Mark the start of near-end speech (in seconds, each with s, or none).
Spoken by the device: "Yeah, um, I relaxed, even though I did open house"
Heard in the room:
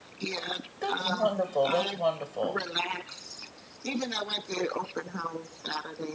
0.8 s